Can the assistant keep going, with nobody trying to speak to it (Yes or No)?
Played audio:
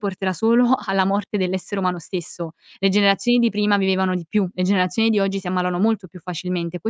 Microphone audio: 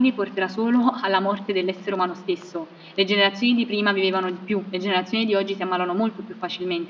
Yes